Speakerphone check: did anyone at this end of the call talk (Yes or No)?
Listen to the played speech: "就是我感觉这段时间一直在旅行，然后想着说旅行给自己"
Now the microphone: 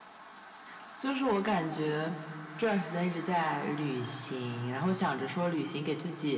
No